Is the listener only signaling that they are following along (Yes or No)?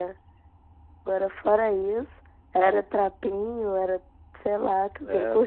No